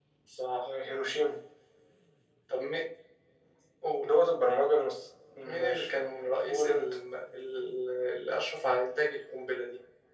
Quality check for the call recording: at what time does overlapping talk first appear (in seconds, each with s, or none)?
5.4 s